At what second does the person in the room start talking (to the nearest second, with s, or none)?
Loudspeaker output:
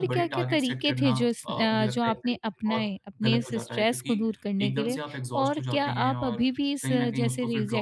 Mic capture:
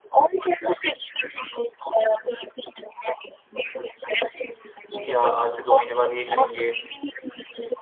5 s